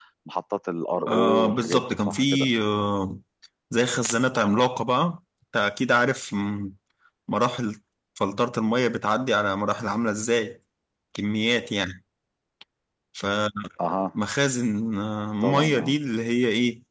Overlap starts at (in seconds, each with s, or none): 1.1 s